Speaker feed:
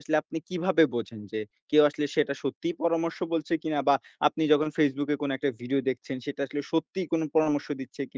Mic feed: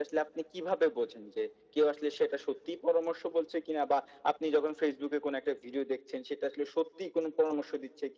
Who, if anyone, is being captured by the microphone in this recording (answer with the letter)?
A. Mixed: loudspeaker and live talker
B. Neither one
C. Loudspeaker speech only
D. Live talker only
C